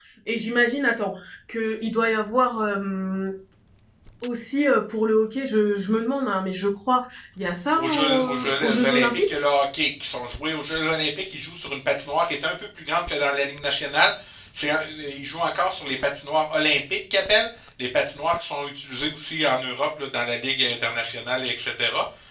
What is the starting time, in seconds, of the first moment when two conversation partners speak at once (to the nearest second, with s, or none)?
8 s